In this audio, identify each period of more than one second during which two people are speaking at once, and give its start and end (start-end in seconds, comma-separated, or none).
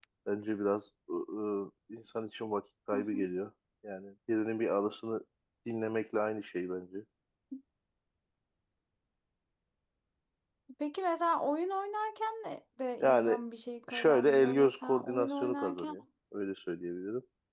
13.9-15.9